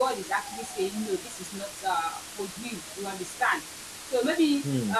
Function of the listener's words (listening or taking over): listening